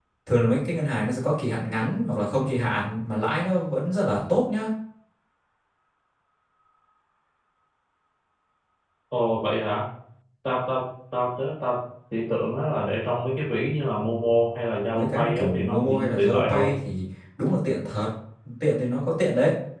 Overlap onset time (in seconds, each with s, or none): 14.9 s